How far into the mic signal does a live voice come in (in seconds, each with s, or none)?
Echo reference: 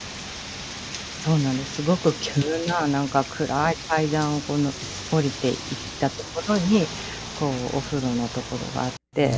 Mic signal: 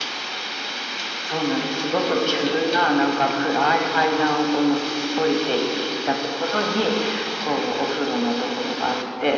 none